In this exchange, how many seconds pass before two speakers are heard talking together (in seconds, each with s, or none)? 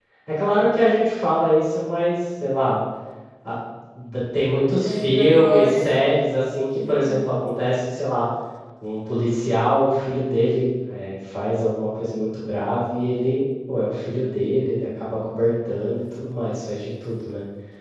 4.8 s